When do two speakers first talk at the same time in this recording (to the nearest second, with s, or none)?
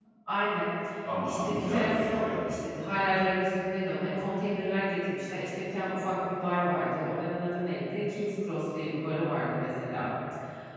1 s